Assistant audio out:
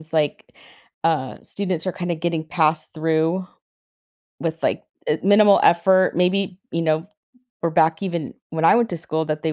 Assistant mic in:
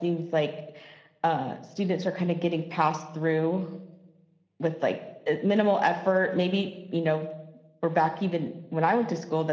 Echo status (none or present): present